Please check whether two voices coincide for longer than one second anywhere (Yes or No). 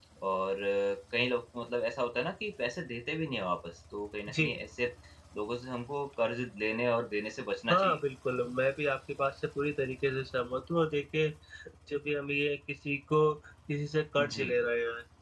No